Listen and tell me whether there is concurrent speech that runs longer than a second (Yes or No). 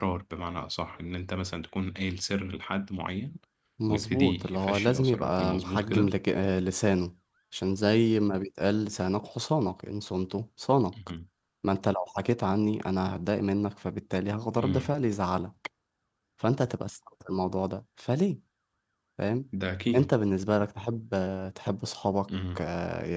Yes